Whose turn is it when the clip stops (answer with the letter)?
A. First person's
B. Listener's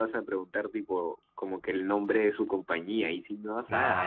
B